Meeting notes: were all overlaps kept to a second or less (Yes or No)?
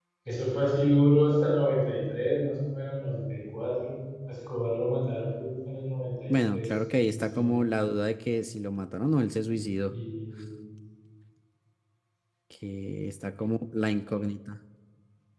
No